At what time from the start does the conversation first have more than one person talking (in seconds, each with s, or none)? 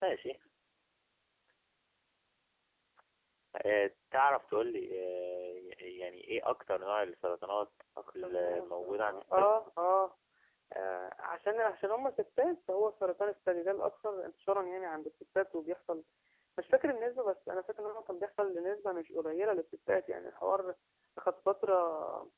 8.0 s